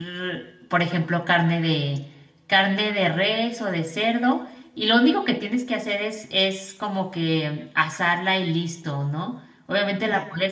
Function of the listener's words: listening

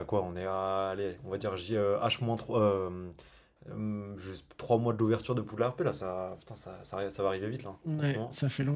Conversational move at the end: taking over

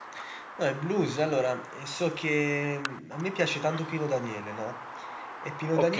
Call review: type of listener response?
listening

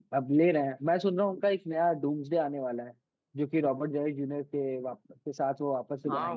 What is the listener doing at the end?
taking over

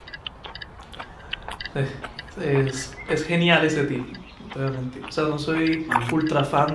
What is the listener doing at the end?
listening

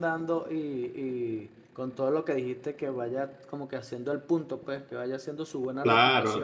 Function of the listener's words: taking over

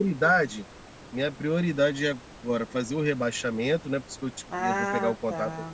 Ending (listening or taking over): taking over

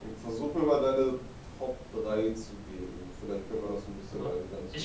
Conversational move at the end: taking over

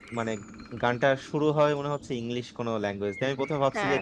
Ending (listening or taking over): listening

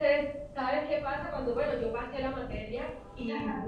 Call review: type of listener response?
listening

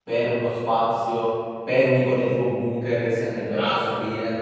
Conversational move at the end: taking over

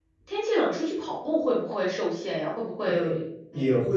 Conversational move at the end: taking over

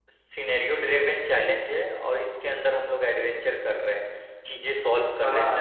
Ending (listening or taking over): taking over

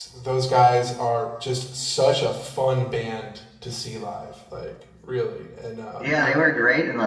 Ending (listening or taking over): taking over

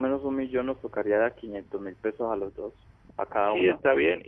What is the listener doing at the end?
taking over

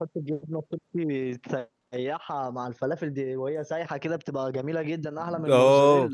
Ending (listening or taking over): taking over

